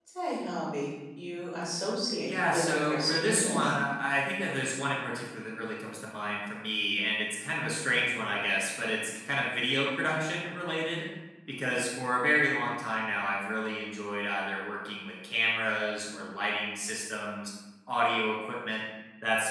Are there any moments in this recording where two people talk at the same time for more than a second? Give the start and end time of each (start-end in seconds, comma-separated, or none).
2.2-3.7